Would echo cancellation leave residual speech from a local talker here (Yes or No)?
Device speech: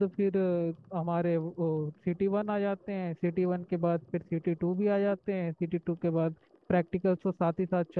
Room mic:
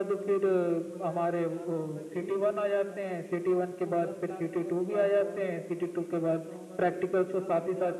Yes